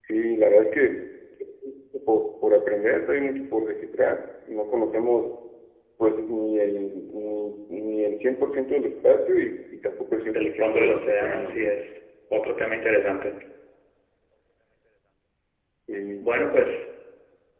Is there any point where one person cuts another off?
Yes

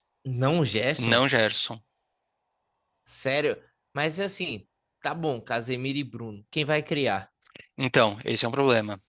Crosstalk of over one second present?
No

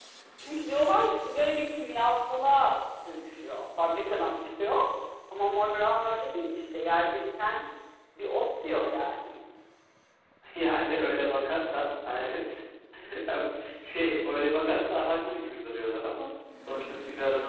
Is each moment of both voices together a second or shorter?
Yes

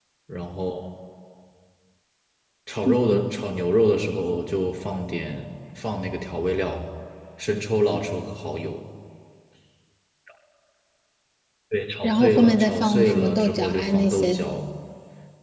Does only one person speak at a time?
No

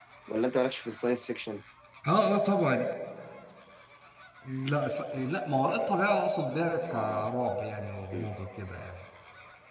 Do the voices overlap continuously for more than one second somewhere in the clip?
No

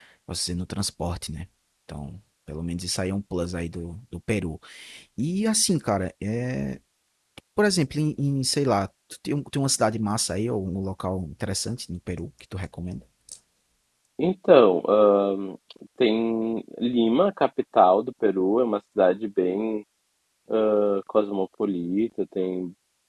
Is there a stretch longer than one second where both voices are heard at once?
No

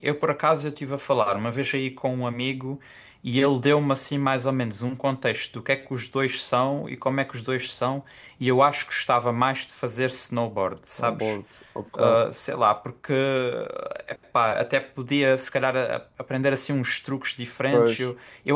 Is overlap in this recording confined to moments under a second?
Yes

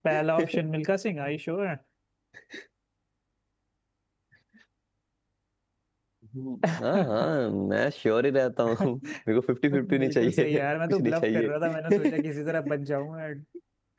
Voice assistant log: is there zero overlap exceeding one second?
No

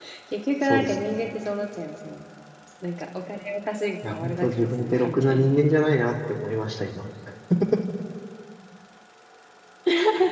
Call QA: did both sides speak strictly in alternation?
No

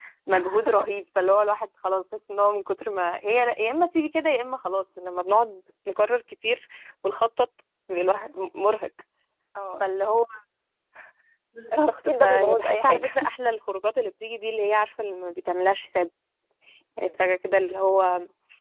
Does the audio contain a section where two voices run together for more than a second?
Yes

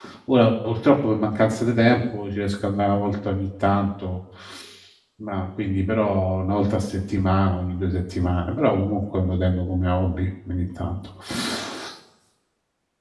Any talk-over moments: No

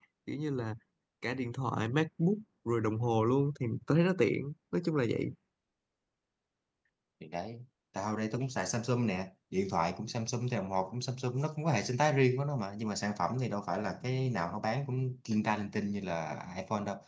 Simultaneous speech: No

